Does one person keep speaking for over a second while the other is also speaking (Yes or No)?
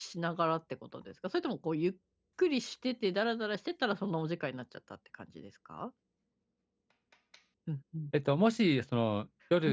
No